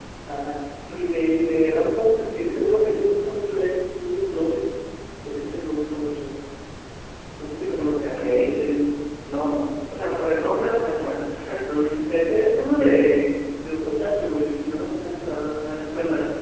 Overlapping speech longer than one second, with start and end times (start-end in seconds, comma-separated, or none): none